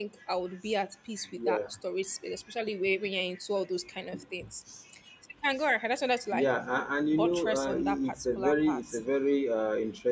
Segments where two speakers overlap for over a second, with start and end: 7.1-8.8

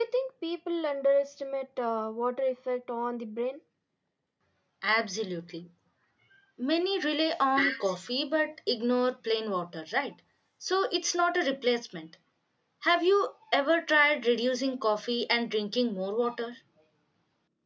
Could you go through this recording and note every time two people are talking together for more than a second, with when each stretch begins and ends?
none

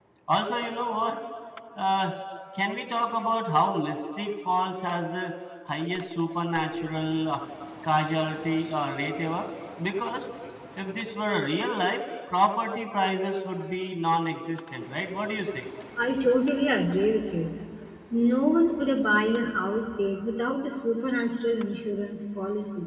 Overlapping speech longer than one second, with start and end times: none

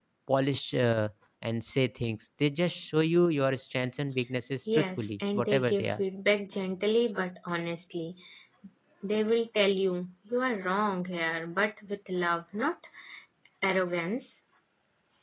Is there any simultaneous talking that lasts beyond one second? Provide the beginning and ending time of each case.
4.7-6.0

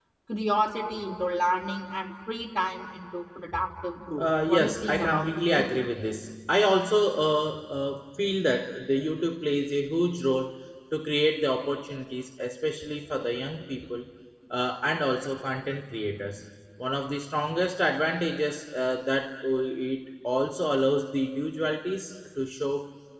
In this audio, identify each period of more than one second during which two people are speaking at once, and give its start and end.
4.2-5.8

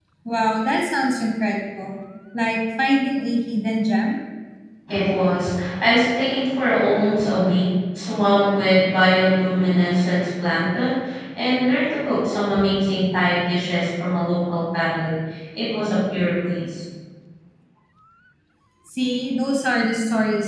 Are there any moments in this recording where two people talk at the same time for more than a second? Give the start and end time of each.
none

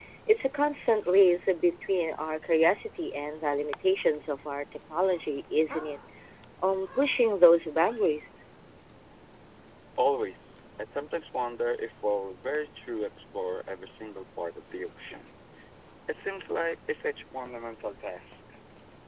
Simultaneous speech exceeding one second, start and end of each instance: none

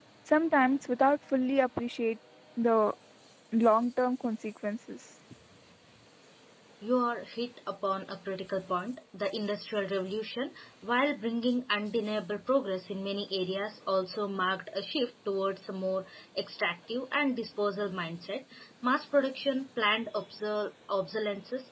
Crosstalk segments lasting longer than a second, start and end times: none

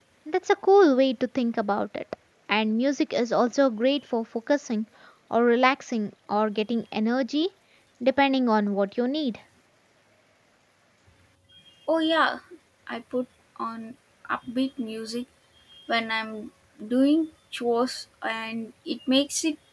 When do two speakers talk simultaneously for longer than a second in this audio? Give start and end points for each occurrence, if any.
none

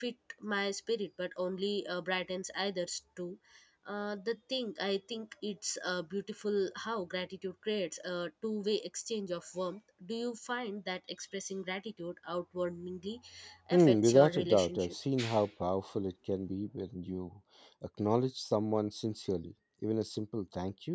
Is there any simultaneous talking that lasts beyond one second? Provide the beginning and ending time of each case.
13.7-14.9

